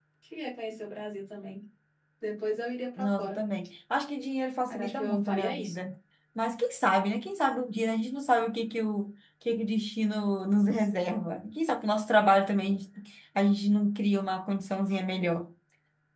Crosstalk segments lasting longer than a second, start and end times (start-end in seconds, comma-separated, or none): 4.7-5.9